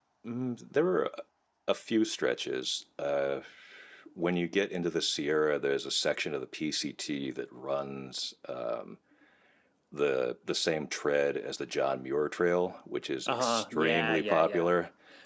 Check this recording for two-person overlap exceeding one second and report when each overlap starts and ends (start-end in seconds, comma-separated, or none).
13.3-14.8